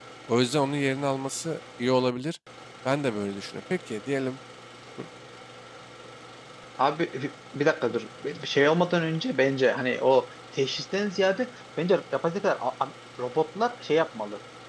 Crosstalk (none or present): none